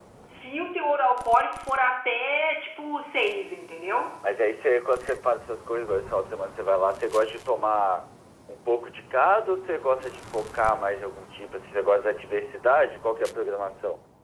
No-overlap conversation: Yes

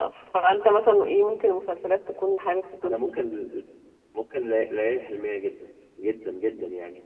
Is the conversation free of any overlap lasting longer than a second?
Yes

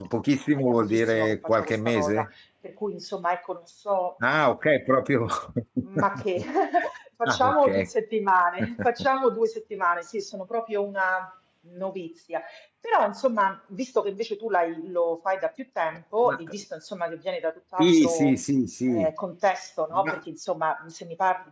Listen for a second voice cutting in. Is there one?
Yes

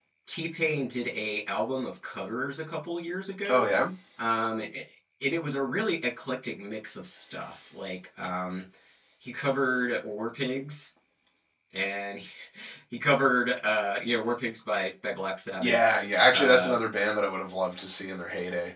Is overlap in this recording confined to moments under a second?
Yes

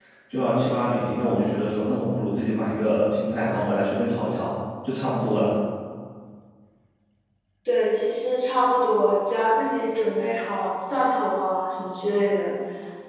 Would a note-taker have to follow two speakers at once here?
No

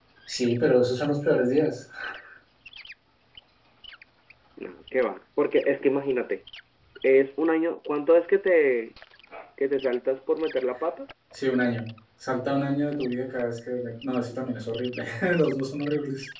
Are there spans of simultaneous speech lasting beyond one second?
No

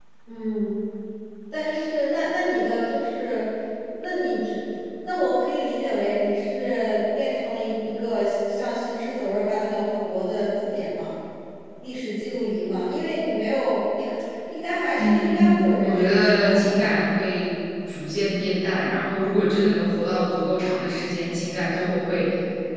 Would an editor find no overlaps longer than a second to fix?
No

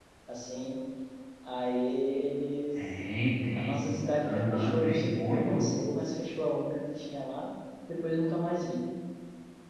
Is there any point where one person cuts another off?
Yes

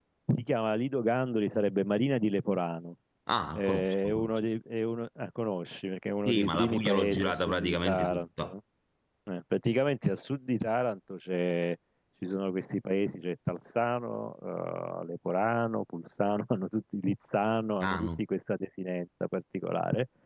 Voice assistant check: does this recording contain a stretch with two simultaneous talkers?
Yes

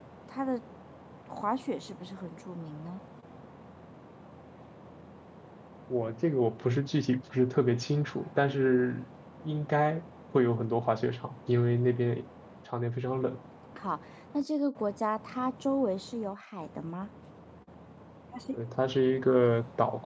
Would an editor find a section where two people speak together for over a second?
No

